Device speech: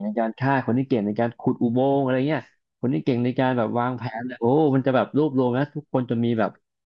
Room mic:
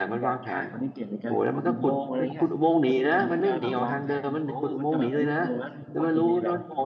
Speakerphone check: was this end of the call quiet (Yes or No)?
No